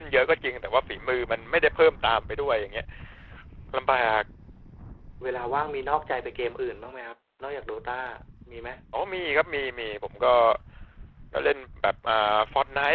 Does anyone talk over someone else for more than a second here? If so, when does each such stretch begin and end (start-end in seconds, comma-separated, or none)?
none